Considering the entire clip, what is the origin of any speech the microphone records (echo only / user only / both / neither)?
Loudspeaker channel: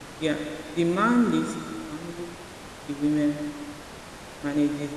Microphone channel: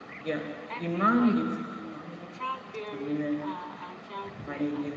both